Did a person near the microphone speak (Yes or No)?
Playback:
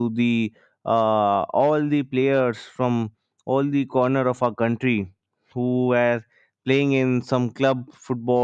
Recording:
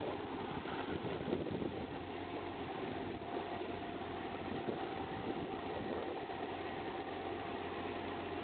No